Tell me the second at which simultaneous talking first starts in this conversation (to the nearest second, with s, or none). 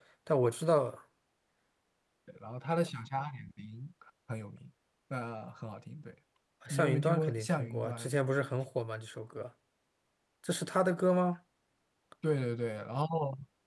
7 s